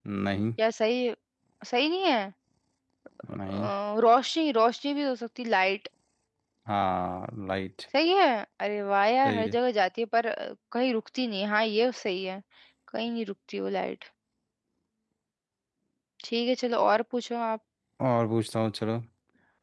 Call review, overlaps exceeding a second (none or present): none